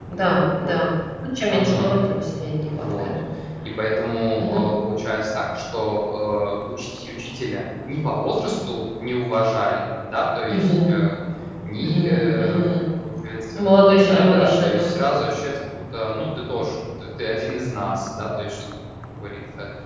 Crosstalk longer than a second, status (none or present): present